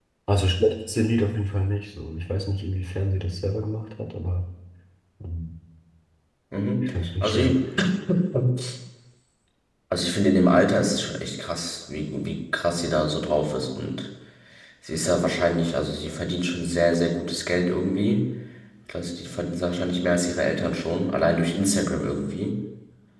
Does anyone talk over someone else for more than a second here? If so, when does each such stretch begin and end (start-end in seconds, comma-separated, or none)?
none